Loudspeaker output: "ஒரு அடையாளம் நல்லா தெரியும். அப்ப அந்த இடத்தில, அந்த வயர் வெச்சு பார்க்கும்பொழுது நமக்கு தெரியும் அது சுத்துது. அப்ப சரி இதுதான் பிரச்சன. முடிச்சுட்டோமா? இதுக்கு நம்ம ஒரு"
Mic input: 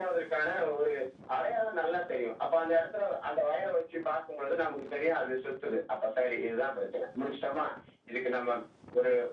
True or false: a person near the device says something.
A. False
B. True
A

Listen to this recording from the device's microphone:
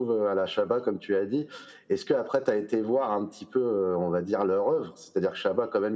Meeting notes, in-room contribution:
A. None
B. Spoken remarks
A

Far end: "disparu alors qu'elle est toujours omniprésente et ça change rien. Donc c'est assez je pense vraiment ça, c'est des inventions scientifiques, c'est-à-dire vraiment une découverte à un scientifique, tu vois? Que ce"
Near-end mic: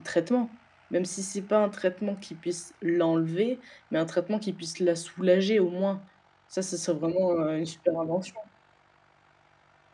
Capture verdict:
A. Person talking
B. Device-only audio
A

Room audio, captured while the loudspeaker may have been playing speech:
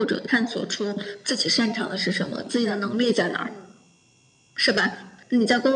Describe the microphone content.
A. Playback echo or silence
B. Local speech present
B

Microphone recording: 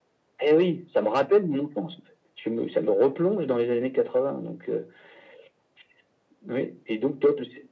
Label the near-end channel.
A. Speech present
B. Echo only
B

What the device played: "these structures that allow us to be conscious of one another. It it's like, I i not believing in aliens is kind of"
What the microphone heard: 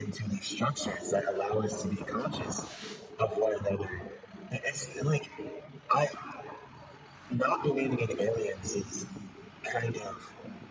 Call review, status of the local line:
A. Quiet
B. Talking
A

